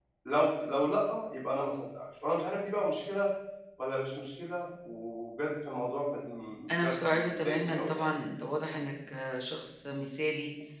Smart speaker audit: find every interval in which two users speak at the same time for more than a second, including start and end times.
6.8-8.1

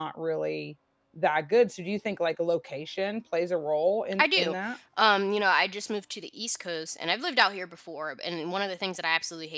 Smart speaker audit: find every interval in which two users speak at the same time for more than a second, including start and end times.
none

